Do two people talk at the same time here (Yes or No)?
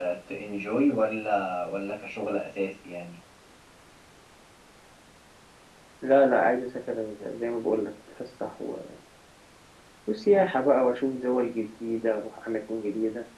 No